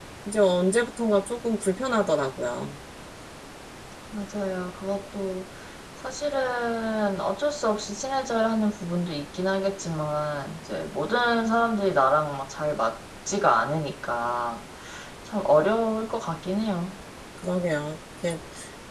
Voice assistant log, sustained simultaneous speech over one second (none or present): none